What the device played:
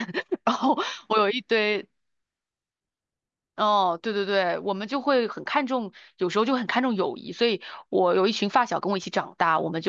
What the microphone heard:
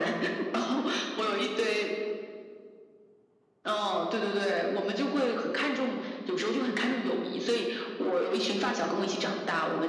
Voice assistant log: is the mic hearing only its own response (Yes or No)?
Yes